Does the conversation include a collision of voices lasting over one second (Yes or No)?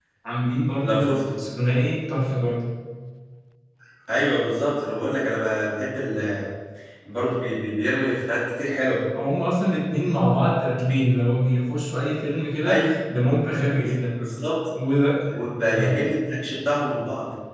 No